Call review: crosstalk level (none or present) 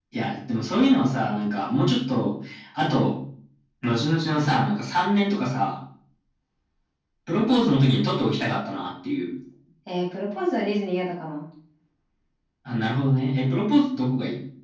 none